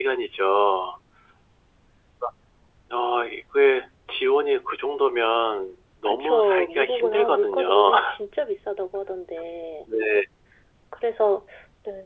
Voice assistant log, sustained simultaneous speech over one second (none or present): present